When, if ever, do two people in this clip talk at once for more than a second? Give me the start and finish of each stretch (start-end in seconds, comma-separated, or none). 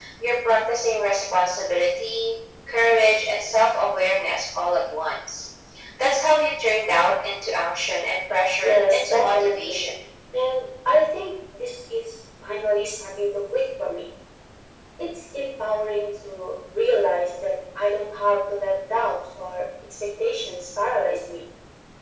8.6-9.9